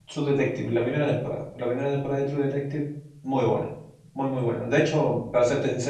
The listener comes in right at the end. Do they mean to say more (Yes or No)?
No